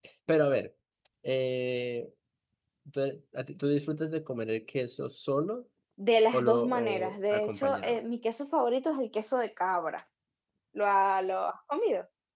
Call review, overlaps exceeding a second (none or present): present